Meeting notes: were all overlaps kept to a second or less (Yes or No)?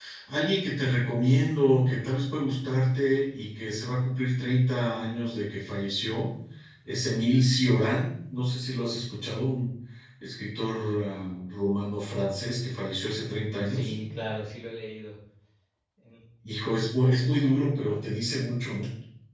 Yes